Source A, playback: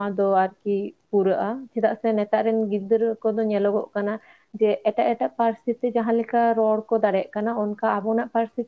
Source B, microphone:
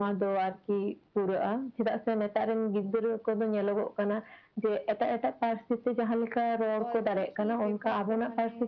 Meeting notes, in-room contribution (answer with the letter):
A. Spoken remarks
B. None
A